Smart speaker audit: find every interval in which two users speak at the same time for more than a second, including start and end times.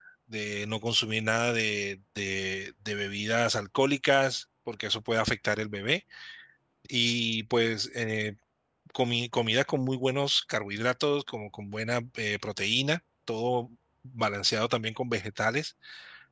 none

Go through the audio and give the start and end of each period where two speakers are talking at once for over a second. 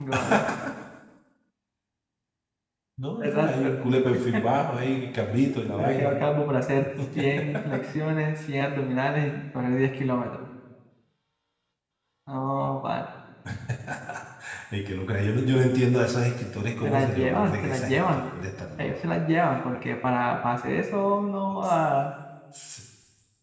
16.8-18.2

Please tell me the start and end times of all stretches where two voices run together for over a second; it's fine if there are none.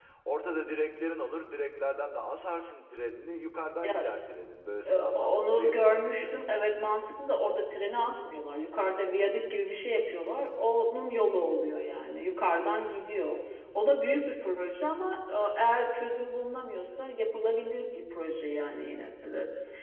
4.8-6.3

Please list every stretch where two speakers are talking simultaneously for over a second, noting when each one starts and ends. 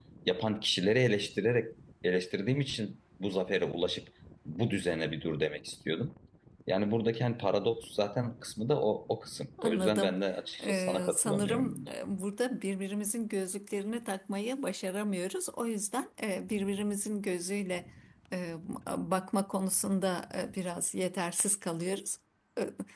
10.6-11.9

